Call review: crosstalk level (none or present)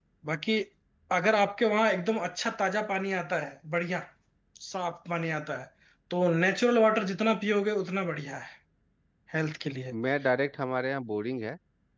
none